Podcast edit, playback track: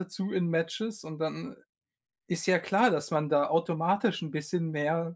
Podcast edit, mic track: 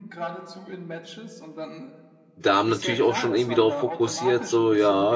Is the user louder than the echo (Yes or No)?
Yes